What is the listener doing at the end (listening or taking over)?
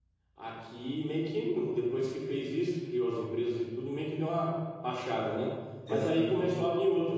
listening